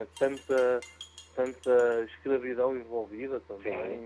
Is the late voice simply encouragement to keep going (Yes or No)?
No